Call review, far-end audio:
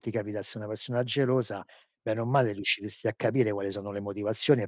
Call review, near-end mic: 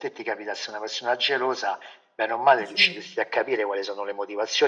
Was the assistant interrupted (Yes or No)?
Yes